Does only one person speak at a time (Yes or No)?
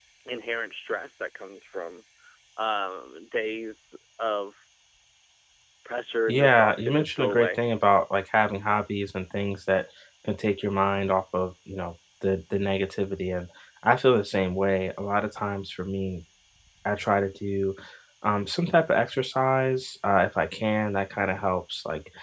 No